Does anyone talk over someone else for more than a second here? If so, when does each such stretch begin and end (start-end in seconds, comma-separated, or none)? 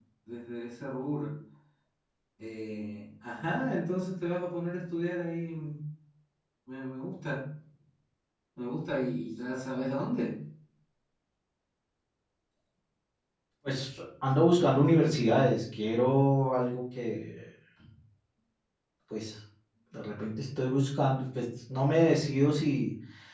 none